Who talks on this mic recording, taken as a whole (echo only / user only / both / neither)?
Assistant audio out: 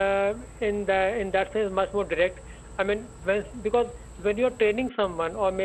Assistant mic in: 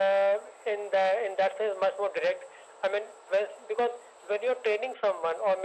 echo only